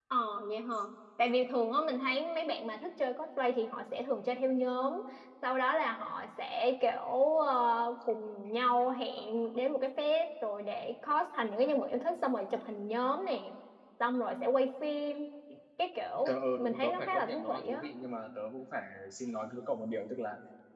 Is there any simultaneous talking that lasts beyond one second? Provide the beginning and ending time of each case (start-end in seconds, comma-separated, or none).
16.2-17.8